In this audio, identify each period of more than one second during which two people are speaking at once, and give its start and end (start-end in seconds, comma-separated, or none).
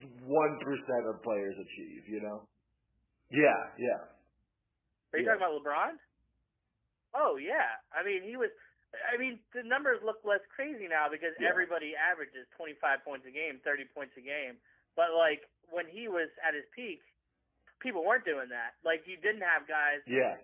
none